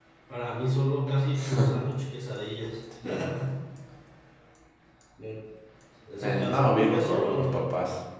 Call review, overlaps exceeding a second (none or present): present